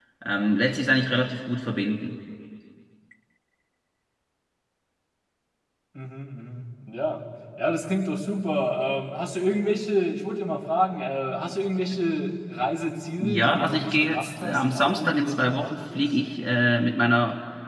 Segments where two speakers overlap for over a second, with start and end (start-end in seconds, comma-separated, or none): 13.2-16.0